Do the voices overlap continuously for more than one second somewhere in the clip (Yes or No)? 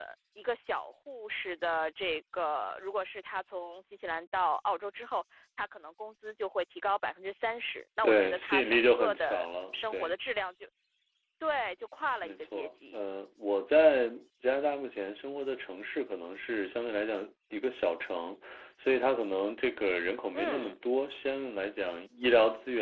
Yes